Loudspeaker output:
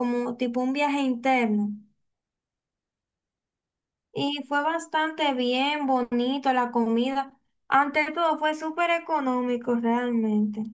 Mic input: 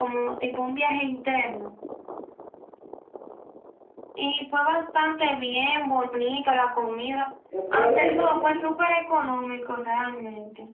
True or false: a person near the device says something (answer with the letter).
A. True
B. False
A